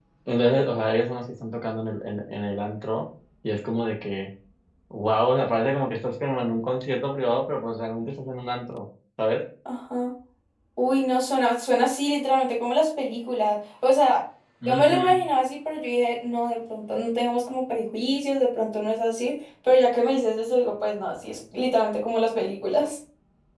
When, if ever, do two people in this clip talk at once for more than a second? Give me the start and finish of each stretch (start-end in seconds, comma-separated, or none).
none